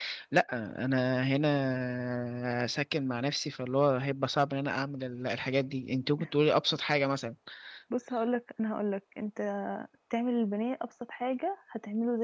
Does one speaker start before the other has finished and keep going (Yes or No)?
No